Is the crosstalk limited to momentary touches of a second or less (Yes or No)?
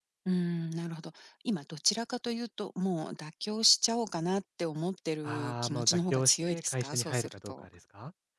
No